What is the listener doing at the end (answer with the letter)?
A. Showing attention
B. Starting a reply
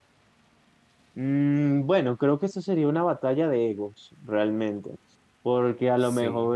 A